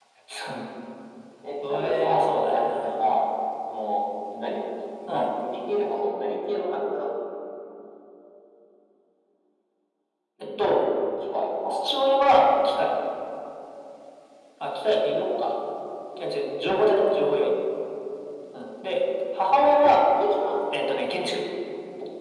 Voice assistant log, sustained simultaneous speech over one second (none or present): present